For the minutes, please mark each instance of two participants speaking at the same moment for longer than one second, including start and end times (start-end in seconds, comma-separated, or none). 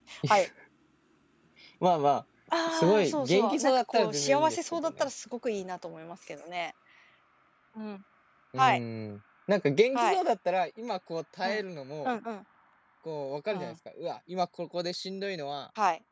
3.0-5.0